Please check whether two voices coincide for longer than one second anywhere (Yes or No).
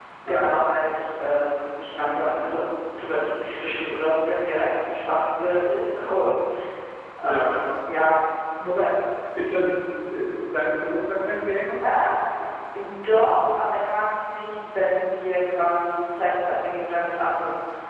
No